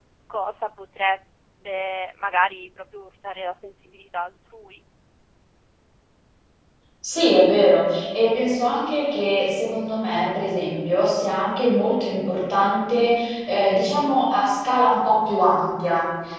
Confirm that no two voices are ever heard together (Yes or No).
Yes